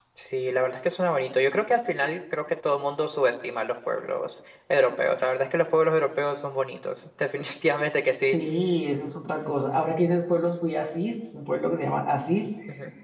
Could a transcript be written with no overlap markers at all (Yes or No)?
Yes